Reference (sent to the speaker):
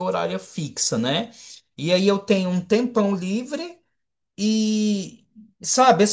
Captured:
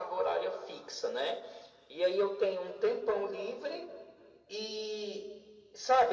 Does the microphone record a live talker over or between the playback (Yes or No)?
No